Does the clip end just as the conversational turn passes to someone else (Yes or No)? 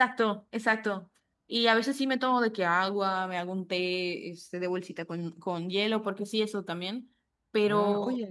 Yes